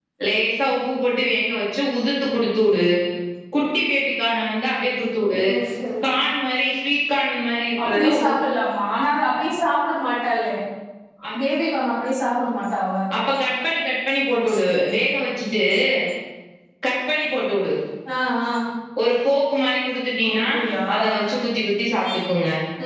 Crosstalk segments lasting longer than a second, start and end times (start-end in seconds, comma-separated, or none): none